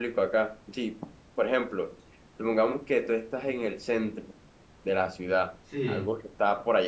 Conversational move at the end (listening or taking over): listening